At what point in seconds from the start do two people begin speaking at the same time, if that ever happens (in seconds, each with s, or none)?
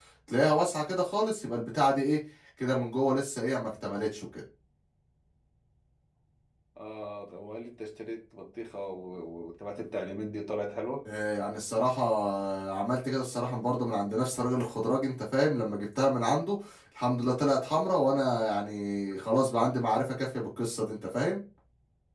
none